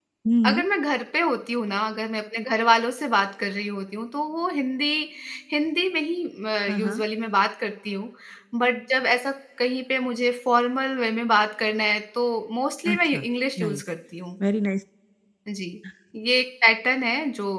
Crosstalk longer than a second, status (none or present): none